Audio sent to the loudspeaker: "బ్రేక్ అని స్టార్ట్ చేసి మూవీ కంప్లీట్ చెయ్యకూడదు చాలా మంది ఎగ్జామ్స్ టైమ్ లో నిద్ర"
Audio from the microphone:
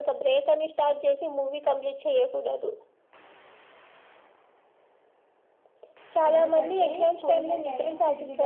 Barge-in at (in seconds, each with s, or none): 6.3 s